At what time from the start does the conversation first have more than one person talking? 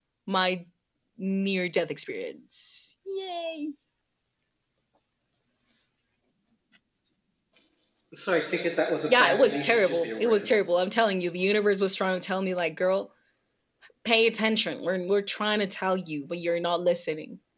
9 s

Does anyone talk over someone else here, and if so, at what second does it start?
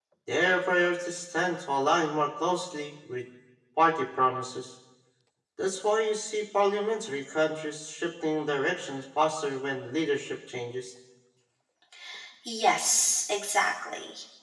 none

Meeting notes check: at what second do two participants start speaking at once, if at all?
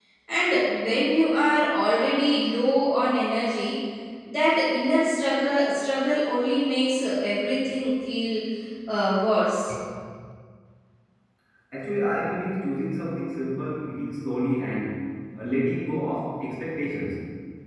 none

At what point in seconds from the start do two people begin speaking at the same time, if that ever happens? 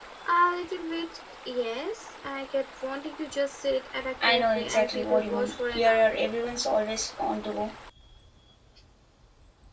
4 s

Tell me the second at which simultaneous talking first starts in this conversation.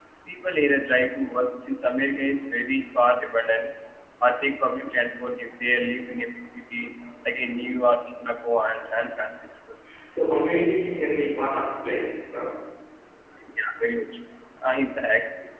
none

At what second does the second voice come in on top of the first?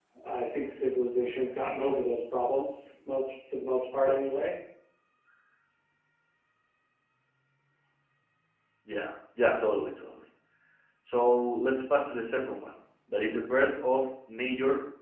none

